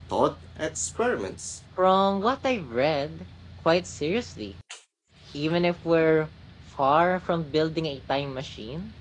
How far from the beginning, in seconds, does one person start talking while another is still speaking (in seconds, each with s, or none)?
none